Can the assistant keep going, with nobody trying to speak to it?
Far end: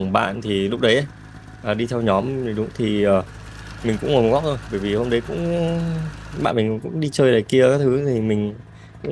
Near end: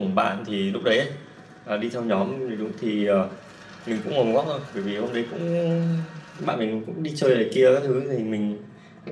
Yes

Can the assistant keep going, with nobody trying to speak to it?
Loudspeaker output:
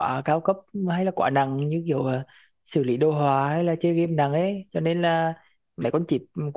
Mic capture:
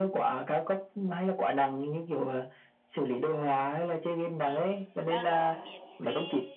No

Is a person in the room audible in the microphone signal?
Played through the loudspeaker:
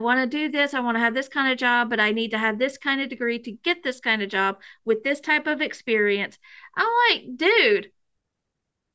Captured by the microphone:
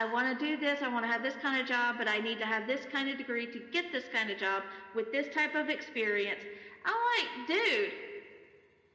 No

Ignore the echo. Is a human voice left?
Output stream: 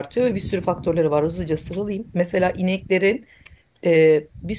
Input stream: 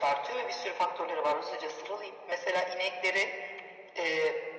No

